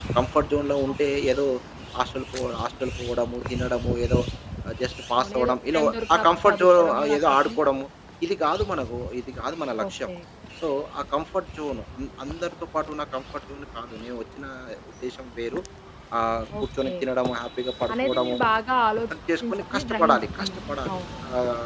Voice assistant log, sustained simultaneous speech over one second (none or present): present